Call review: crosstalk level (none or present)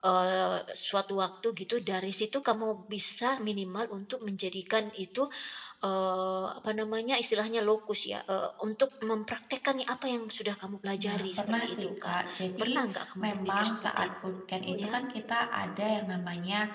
present